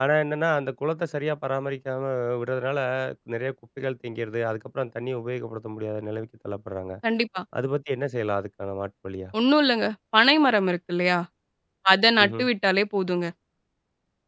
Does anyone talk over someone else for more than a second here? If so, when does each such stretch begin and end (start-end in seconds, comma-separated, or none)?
none